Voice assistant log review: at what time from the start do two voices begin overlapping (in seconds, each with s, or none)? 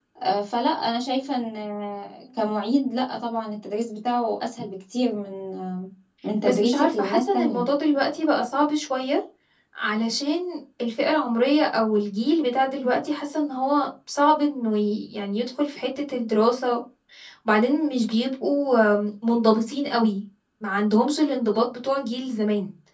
6.4 s